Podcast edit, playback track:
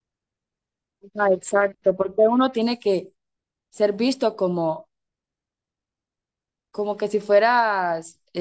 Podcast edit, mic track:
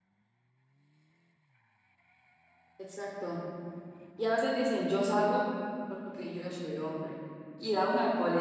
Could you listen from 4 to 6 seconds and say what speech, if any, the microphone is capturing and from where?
user only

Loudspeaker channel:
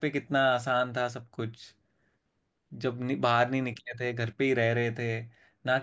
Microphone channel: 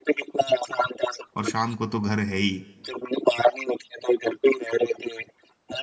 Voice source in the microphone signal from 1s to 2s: both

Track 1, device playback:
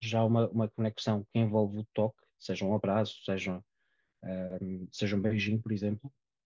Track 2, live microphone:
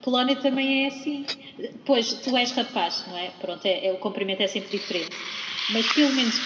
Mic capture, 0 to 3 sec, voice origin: user only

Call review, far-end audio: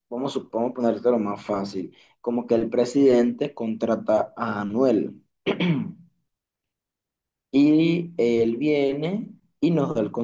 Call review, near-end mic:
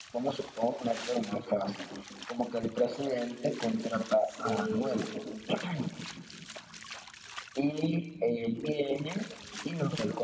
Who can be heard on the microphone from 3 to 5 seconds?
both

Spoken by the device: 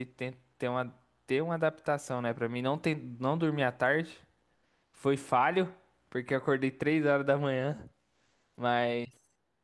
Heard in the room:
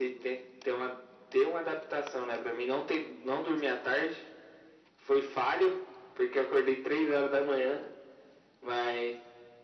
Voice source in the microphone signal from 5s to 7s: echo only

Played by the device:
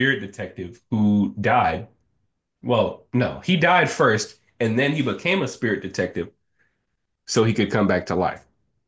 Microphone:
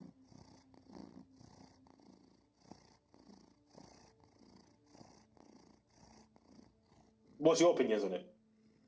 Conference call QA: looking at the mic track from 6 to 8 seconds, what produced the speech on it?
user only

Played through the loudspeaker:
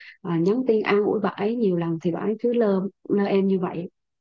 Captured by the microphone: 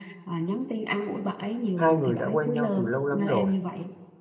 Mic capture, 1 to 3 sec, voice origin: both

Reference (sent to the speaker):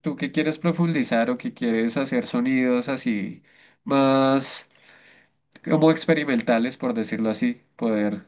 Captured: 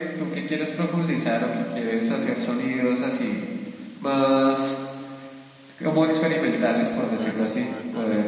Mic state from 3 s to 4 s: echo only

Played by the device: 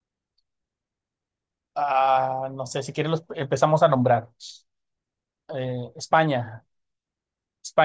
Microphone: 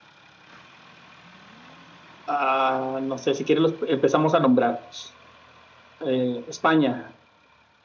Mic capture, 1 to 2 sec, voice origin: neither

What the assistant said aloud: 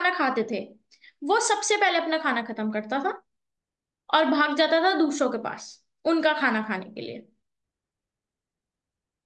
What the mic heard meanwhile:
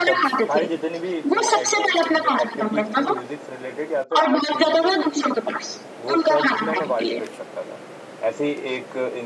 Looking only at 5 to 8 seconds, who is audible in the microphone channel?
both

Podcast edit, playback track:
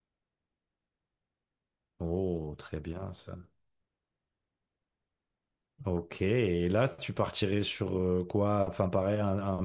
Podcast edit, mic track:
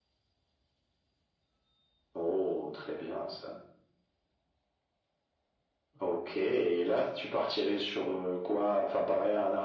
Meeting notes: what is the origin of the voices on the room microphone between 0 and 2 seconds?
neither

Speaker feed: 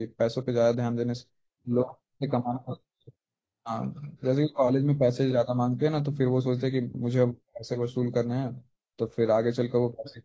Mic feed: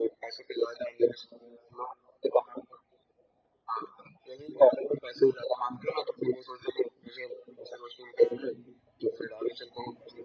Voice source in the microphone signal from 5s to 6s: echo only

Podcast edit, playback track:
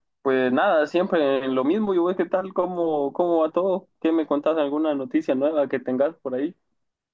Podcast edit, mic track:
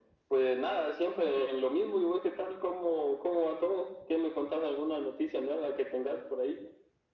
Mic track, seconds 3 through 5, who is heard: echo only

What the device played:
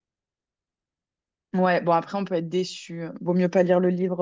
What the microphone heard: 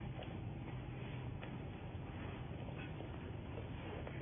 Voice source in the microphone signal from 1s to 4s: neither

